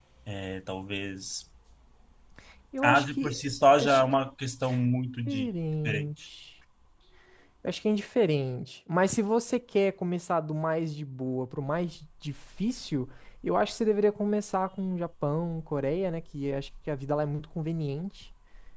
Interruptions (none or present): present